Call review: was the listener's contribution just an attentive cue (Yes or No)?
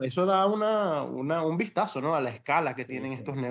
No